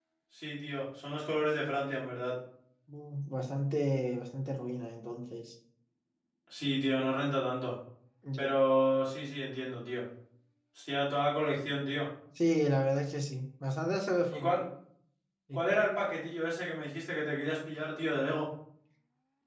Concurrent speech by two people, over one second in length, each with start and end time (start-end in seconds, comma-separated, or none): none